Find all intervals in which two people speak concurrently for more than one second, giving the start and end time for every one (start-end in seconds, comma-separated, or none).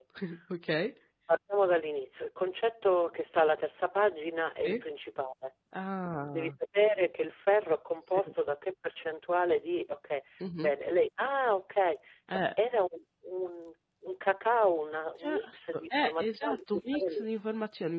15.2-17.3